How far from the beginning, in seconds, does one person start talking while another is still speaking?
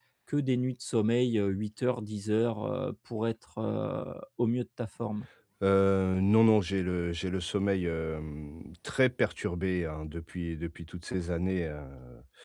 none

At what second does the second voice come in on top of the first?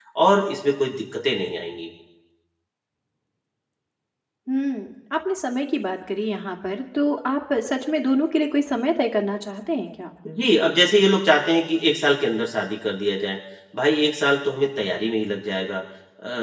none

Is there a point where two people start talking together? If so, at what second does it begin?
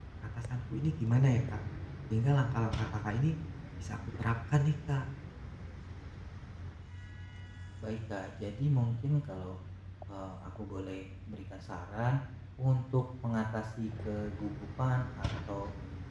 none

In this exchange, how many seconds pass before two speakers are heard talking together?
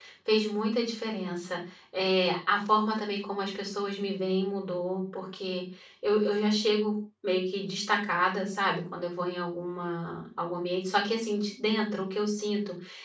none

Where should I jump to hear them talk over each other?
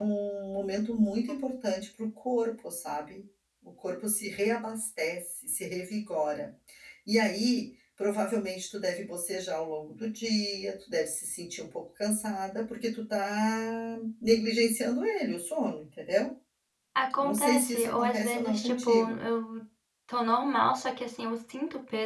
17.2 s

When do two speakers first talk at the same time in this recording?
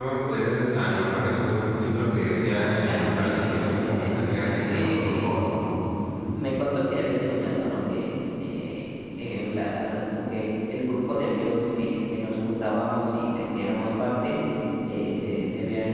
2.8 s

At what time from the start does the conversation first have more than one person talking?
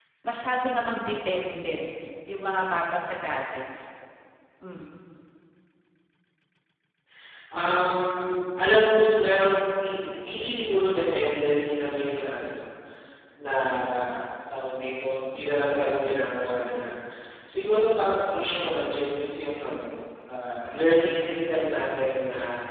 none

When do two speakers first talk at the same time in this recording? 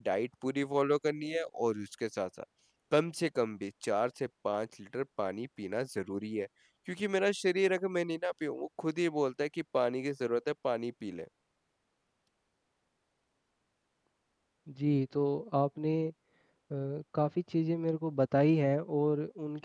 none

